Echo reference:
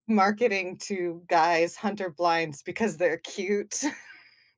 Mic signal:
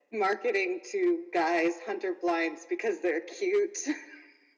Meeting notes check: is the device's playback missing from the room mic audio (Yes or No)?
No